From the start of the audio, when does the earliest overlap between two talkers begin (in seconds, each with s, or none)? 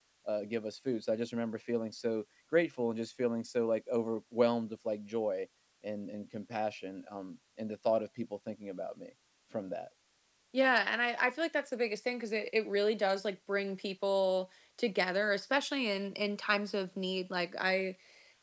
none